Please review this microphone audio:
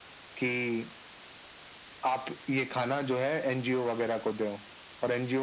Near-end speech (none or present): none